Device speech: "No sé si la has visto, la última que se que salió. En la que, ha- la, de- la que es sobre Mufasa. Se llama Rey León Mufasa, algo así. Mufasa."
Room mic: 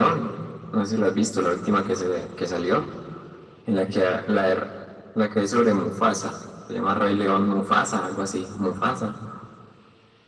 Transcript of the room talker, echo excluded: none

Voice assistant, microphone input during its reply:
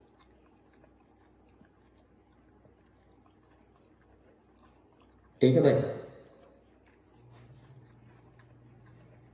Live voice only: ठीक है भाई

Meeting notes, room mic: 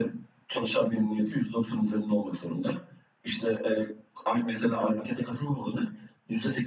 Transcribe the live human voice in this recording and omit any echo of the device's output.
none

